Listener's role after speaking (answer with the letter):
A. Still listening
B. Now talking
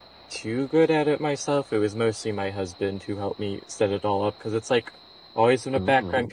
A